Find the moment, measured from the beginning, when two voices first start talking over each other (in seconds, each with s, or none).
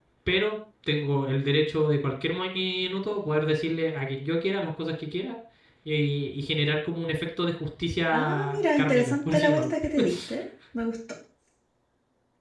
8.1 s